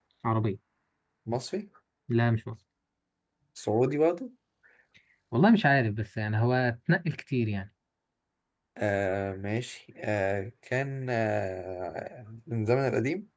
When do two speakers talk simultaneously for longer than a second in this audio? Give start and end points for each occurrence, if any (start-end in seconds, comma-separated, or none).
none